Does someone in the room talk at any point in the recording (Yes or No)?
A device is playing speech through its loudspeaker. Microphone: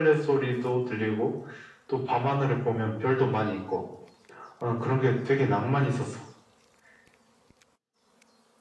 No